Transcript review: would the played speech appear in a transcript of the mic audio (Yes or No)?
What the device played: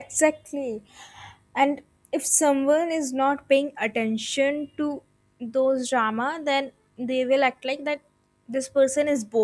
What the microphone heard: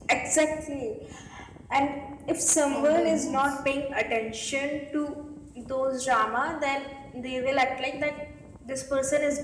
Yes